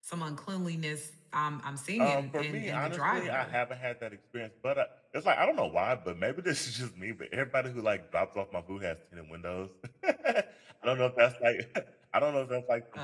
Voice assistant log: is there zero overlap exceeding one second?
No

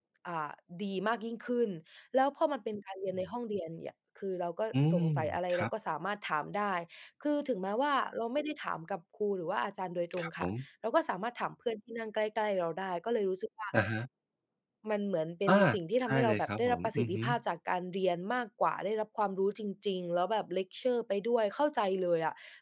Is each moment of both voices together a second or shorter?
No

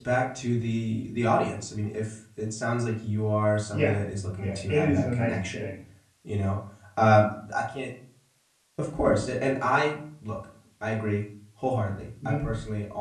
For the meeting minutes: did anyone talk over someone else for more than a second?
Yes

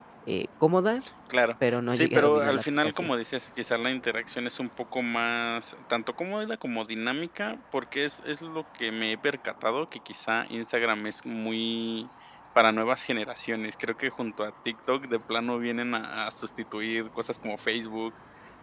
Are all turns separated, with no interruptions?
No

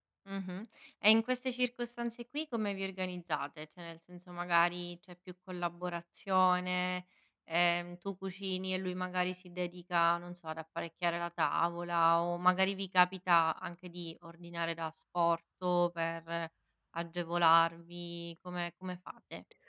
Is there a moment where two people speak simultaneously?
No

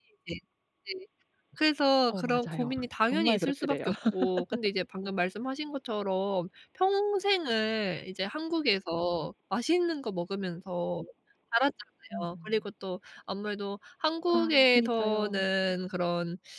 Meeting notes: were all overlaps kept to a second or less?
No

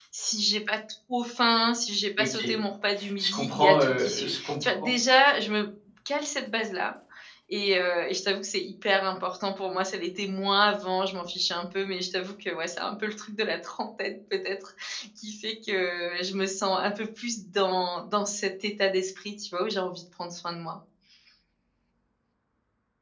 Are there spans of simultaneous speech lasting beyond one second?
Yes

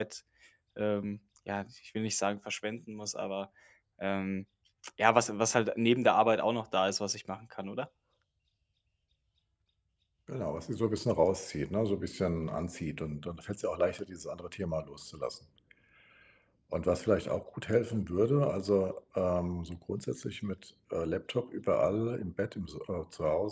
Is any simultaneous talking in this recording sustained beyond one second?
No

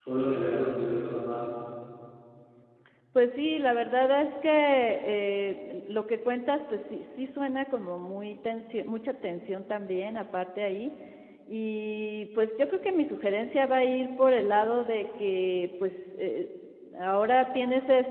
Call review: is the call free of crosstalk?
Yes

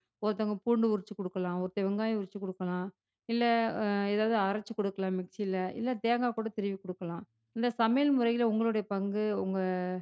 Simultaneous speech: No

